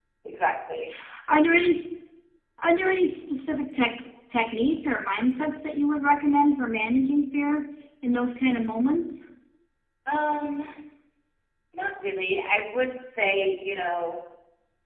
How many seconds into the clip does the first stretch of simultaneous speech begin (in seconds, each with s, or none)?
none